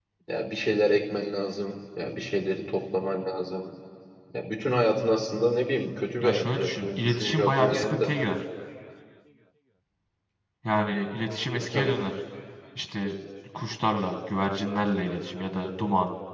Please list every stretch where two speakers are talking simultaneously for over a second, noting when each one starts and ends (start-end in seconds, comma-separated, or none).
6.2-8.1